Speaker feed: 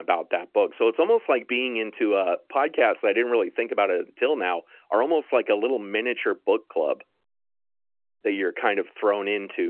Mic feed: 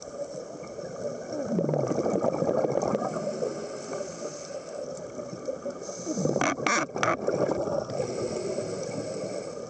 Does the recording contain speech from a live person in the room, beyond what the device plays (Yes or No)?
No